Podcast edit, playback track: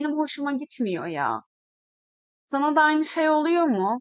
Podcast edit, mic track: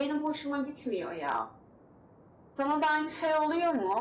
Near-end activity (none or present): none